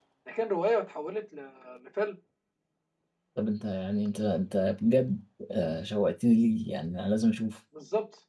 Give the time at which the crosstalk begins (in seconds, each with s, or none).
none